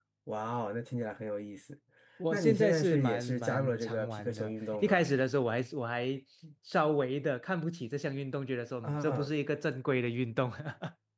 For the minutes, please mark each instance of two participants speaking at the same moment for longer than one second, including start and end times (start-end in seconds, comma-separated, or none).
2.3-5.0